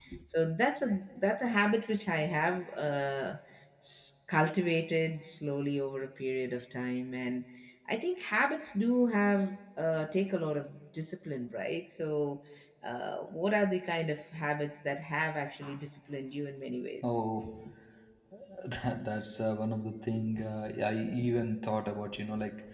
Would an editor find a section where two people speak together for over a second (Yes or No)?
No